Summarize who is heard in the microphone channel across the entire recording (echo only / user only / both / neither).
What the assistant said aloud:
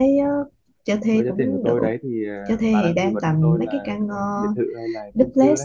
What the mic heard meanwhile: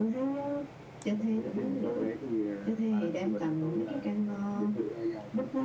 echo only